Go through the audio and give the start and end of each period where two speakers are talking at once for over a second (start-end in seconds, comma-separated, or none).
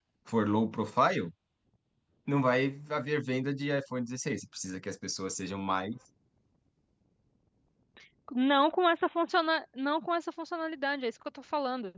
none